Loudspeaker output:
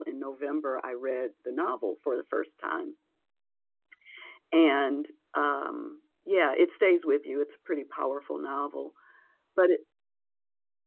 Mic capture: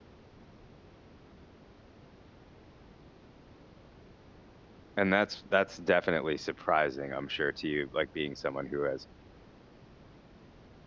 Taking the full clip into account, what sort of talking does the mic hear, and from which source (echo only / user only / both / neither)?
user only